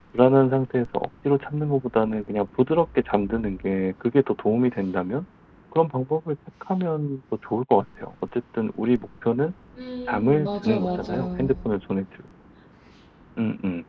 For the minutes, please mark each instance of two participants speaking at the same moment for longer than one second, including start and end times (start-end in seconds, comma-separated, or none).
10.1-11.5